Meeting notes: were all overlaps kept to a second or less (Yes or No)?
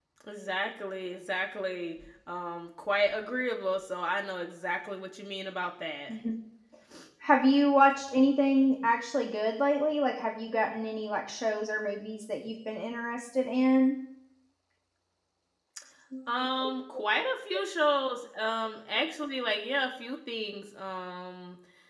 Yes